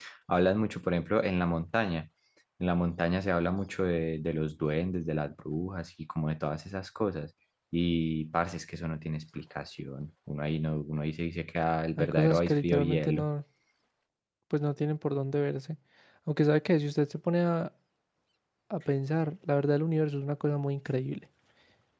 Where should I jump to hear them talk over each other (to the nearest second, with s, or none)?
12 s